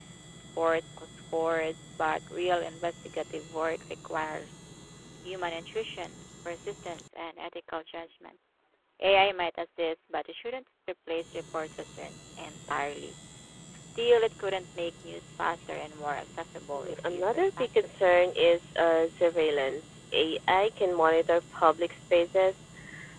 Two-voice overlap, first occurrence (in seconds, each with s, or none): 16.7 s